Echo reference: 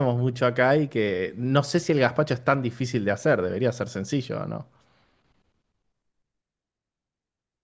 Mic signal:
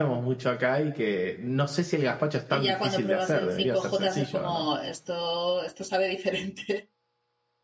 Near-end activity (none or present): present